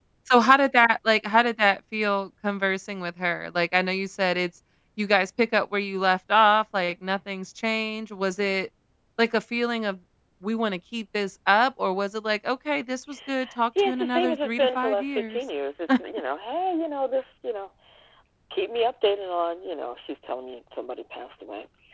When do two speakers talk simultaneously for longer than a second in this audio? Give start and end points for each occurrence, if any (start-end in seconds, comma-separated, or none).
13.8-15.4